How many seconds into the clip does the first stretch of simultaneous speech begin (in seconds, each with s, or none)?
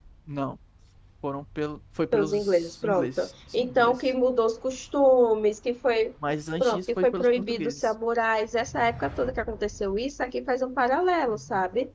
2.1 s